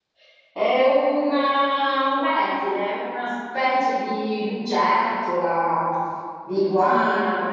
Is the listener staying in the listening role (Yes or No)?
Yes